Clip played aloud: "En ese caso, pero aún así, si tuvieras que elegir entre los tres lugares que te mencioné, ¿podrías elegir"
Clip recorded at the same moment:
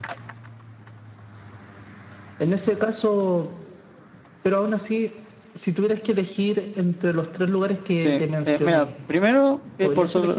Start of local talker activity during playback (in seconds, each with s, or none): 7.9 s